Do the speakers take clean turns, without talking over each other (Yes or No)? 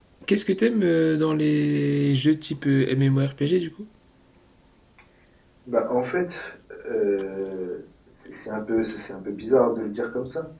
Yes